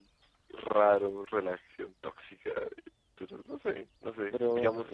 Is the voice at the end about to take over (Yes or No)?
Yes